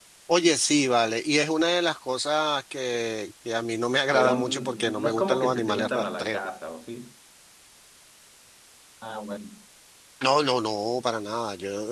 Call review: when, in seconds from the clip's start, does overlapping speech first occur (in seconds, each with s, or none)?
4.1 s